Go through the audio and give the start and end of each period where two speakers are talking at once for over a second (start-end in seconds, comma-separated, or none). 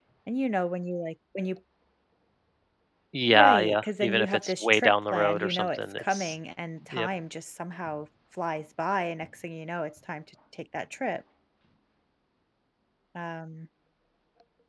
3.2-6.3